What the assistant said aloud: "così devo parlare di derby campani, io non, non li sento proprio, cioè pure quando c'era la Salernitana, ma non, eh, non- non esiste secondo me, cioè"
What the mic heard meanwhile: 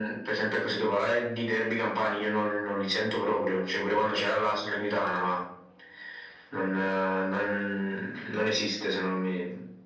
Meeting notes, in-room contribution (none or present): none